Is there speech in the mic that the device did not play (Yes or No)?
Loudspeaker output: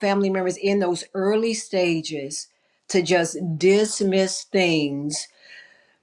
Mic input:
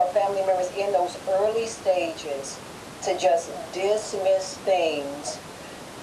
No